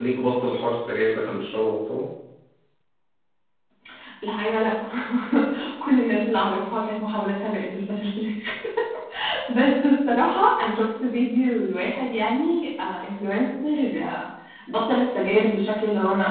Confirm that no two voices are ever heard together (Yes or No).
Yes